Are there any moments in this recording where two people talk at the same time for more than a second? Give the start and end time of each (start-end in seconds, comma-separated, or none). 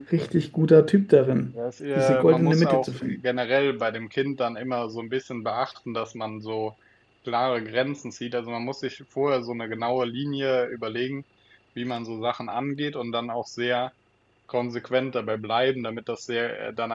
1.9-3.2